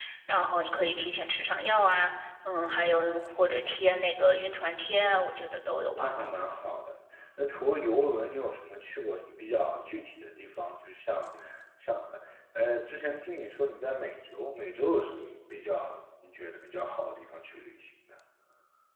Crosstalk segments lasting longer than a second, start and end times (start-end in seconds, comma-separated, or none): none